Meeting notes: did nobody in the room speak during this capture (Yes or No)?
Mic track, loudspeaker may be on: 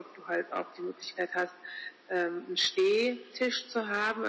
Yes